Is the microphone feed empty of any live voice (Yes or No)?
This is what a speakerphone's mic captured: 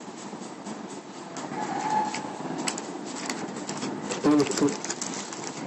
No